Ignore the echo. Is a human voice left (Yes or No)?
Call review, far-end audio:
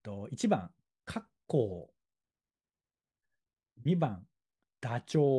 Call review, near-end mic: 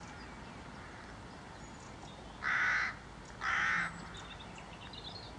No